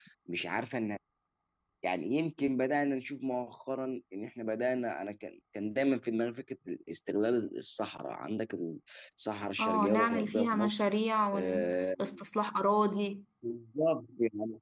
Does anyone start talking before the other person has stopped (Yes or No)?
Yes